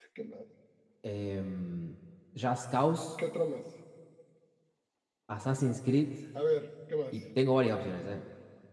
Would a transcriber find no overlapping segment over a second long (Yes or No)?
Yes